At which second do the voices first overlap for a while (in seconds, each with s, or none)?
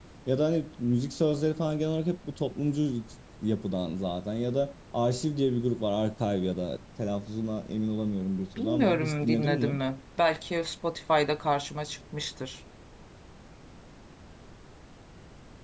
8.6 s